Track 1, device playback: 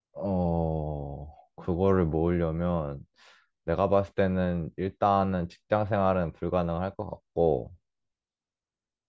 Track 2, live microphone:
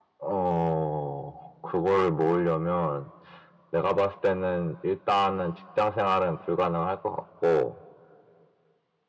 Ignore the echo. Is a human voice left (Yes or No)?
No